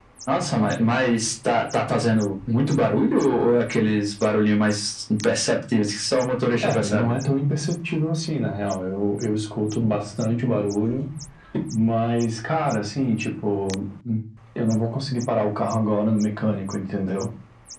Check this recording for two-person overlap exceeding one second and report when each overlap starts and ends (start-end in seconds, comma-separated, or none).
none